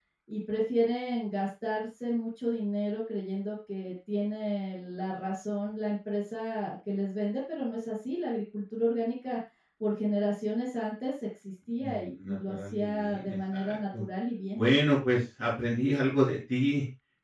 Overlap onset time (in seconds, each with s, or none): 11.8 s